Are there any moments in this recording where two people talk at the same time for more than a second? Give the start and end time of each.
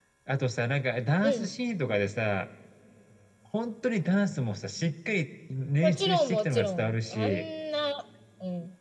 5.8-7.4

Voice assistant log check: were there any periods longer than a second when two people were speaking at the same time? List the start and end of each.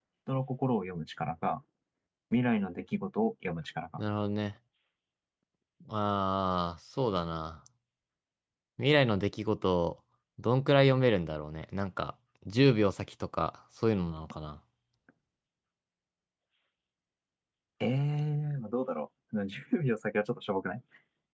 none

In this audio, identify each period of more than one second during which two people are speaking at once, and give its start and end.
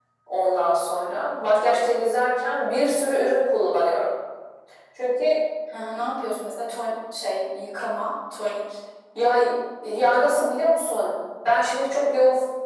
none

